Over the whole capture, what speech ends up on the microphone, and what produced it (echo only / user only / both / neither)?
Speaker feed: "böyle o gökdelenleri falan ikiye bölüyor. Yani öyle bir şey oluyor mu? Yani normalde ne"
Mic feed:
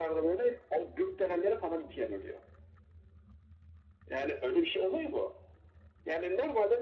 echo only